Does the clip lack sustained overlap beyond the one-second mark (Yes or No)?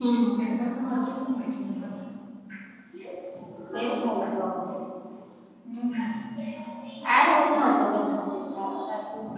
Yes